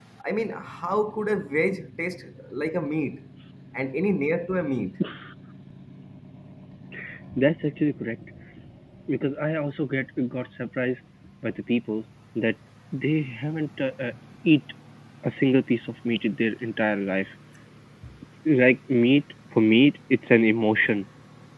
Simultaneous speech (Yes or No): No